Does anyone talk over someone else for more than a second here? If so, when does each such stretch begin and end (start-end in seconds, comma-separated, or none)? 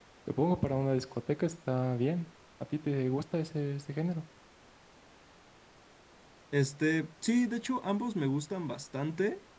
none